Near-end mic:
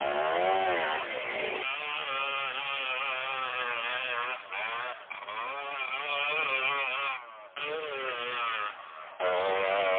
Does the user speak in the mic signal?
No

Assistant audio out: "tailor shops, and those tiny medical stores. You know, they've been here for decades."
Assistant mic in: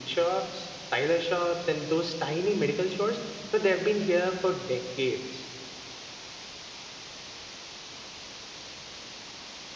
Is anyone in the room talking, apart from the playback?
No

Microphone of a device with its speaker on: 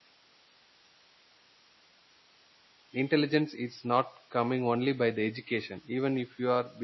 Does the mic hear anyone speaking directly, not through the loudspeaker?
Yes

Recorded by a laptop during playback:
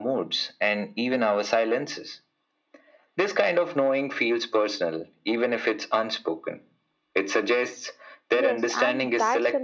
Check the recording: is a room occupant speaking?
Yes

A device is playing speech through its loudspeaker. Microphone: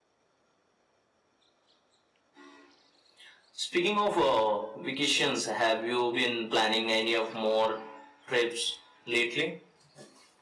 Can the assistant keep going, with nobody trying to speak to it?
Yes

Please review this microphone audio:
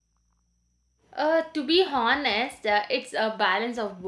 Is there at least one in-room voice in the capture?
Yes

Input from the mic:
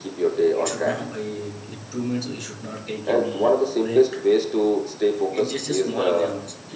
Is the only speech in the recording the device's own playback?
No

